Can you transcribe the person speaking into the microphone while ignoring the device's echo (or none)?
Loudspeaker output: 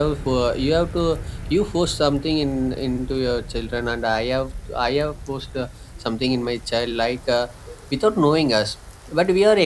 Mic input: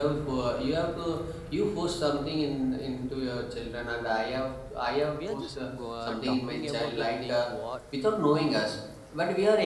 we are just go, uh, talking about the thing what